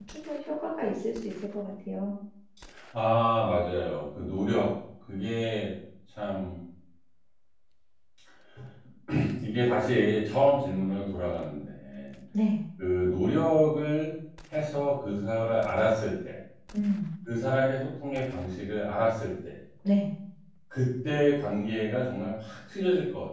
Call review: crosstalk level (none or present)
none